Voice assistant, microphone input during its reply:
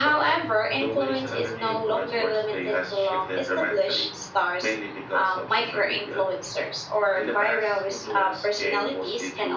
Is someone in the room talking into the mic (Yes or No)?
No